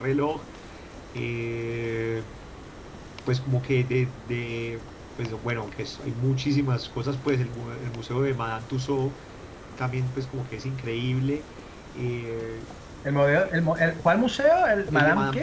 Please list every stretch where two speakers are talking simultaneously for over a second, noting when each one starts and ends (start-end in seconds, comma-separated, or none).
none